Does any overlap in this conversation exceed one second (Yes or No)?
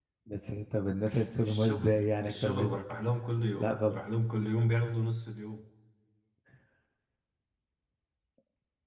Yes